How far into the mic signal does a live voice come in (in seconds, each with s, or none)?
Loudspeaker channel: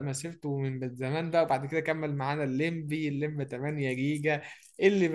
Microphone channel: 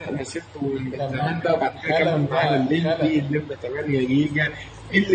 1.0 s